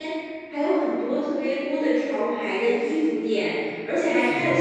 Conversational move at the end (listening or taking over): listening